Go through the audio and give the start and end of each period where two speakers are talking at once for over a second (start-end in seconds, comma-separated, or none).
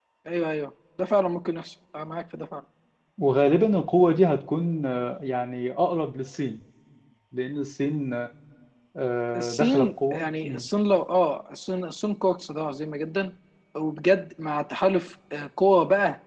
9.3-10.7